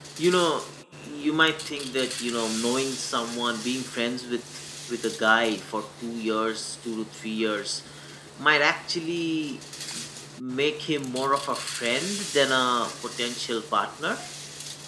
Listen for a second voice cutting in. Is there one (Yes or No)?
No